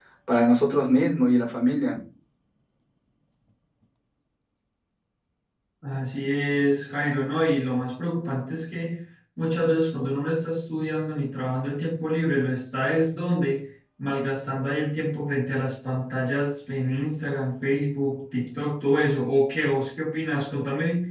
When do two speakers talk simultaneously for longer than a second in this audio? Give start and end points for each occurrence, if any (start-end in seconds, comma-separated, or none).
none